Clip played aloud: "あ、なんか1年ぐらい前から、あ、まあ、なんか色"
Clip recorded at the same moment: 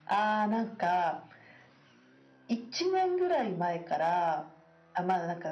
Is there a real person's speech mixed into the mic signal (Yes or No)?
No